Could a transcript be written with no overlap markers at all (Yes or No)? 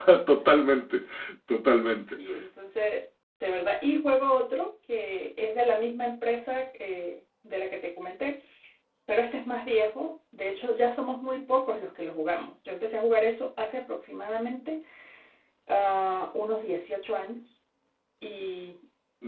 Yes